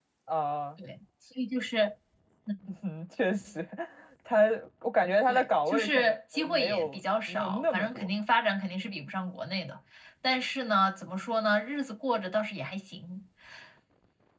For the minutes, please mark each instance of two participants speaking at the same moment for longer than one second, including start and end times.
5.3-8.1

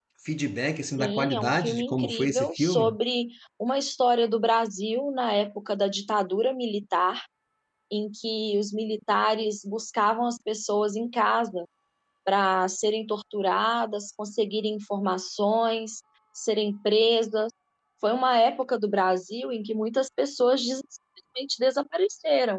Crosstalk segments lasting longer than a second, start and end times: 1.0-2.9

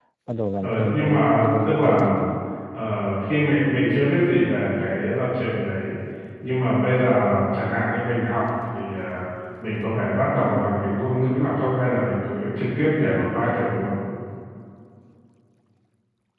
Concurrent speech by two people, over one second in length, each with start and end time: 0.6-2.1

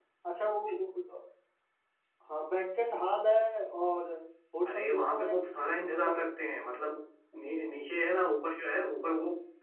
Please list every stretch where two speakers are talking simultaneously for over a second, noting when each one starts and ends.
4.6-6.3

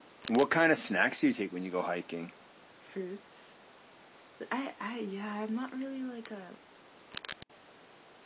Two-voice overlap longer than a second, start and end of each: none

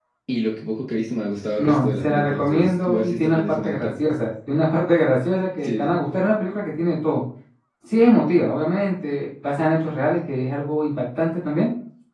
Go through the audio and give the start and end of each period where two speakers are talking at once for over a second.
1.6-3.9

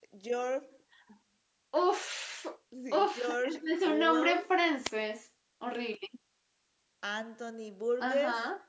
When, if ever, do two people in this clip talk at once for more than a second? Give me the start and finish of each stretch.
2.9-4.5

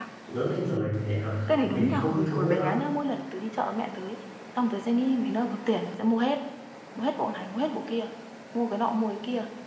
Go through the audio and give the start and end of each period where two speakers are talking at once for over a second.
1.5-2.8

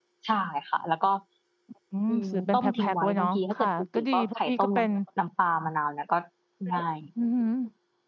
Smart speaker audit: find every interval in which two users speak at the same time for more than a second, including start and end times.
2.1-4.9

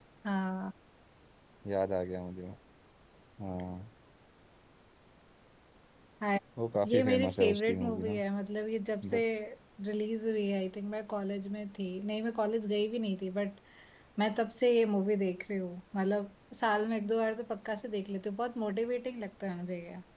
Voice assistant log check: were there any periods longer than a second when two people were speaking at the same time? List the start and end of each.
6.8-8.2

